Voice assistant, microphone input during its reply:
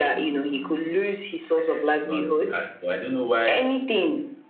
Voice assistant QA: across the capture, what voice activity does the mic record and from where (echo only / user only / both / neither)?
both